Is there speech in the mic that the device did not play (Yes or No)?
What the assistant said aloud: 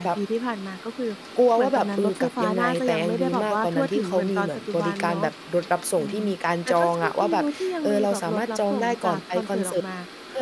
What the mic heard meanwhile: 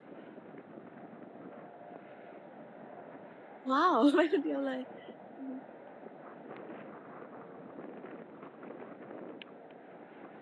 Yes